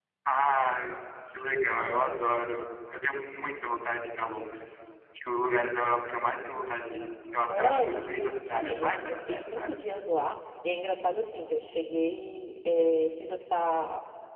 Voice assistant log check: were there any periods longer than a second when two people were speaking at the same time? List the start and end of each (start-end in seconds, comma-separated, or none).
7.5-9.8